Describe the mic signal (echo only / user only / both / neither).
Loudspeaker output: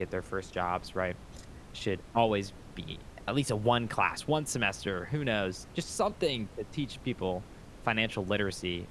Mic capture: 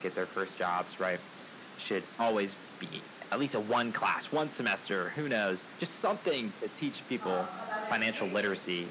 both